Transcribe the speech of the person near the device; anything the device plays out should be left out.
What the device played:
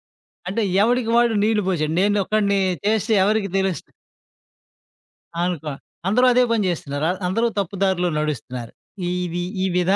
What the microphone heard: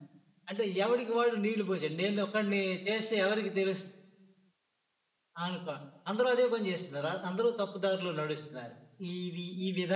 none

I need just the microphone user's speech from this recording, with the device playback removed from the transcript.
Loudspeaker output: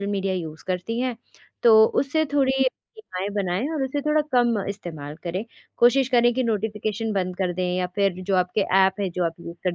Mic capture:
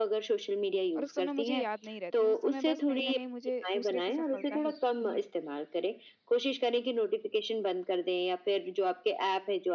और उस समय मुझे याद नहीं रहती है, उस समय बस कहीं न कहीं मुझे दूसरे की सफलता ही दिखती है।

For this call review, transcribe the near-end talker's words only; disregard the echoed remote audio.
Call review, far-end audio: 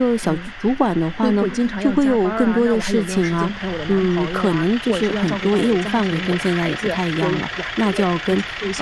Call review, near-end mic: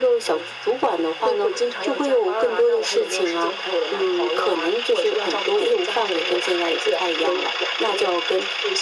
none

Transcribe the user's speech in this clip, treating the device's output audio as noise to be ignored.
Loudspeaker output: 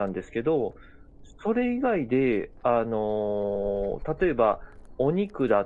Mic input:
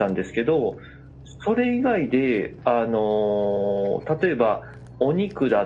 none

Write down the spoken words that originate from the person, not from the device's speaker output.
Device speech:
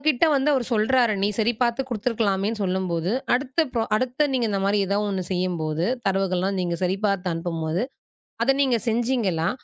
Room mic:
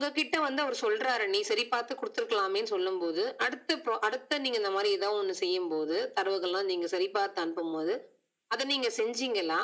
none

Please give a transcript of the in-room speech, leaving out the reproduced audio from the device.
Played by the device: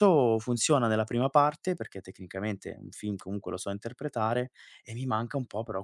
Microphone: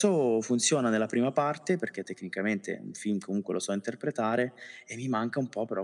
none

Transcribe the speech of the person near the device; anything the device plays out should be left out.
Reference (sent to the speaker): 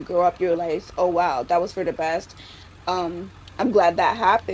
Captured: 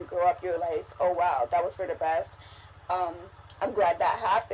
none

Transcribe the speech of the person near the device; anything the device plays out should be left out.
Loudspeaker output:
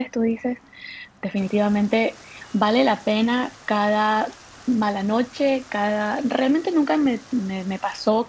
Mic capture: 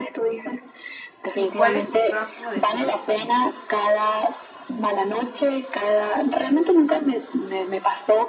¿Y cuál es tu próximo destino?

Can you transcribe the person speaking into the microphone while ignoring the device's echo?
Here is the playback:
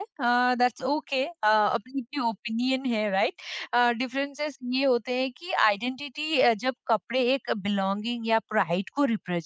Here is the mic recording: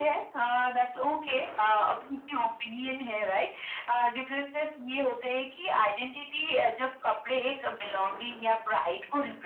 none

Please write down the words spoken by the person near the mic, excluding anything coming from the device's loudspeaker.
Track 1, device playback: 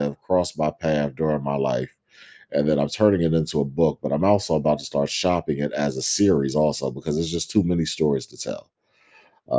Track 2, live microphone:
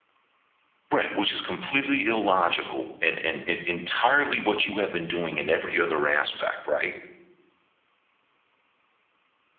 Right, which is completely illogical and, and it, entirely what you have been doing in every other aspect, right?

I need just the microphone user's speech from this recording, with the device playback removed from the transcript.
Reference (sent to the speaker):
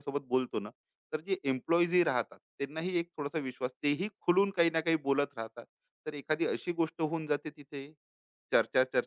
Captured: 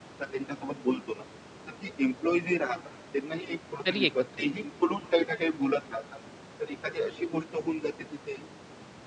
तरी एकत्रच.

